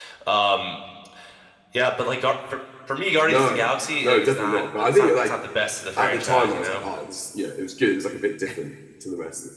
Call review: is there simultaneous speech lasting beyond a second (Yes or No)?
Yes